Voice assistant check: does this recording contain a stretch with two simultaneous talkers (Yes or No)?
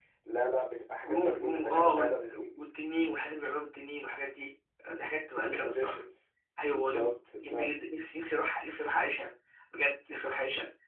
Yes